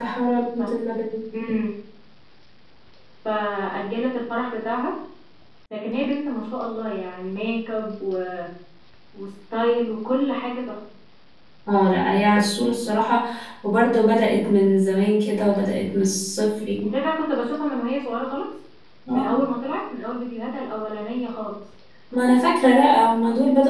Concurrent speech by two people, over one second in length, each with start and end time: none

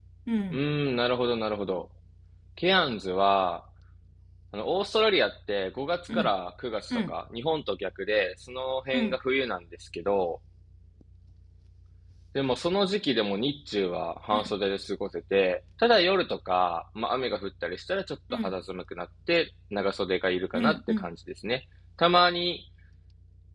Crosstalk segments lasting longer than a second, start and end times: none

